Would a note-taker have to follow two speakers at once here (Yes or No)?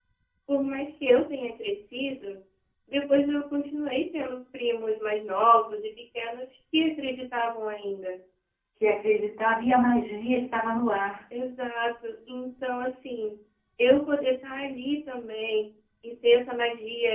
No